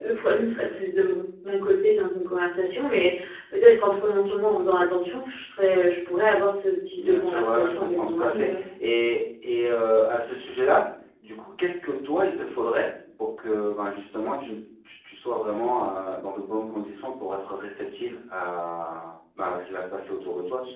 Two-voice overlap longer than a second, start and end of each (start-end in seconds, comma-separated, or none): 7.0-8.6